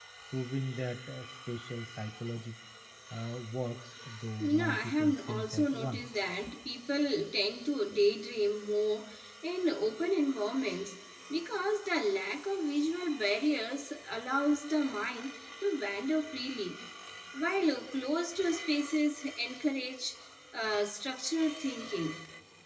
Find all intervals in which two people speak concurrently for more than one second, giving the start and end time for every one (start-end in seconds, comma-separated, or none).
4.4-6.0